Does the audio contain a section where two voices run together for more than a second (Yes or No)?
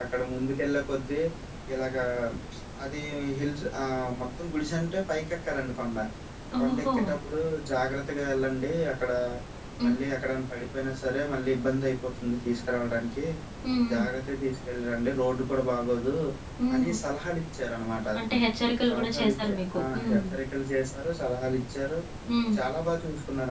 Yes